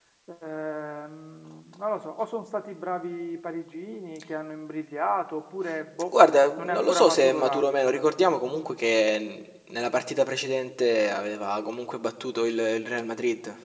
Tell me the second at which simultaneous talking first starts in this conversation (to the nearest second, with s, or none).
7 s